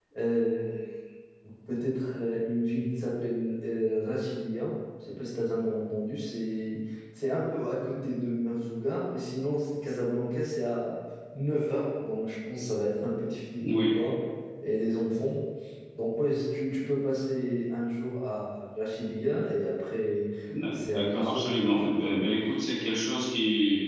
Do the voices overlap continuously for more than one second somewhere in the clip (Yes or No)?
Yes